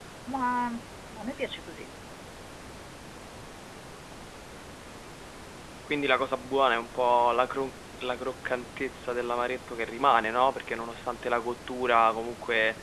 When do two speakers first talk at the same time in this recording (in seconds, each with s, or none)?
none